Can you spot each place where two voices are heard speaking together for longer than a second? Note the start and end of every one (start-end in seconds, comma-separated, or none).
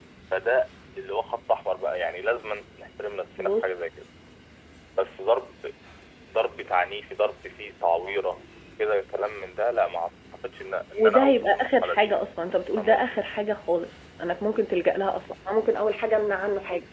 10.9-12.2